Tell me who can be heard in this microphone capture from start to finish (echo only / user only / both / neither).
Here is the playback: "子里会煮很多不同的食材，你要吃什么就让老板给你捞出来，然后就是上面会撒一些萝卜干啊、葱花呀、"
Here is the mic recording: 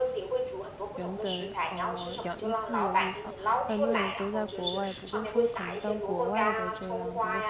both